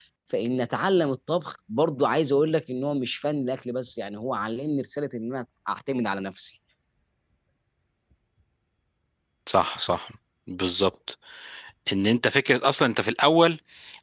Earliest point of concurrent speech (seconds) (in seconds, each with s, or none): none